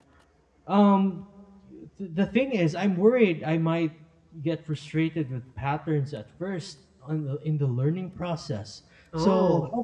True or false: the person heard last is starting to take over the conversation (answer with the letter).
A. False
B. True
A